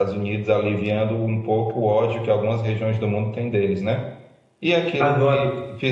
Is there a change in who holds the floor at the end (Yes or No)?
No